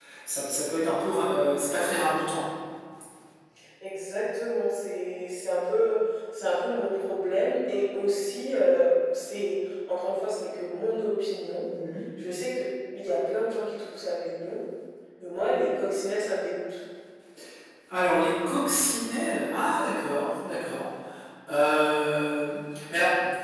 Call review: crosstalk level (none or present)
none